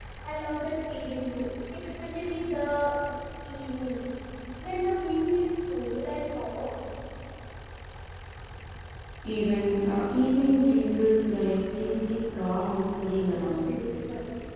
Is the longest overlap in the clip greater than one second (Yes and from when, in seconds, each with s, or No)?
No